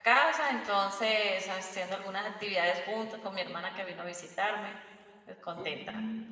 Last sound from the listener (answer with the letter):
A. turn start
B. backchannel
A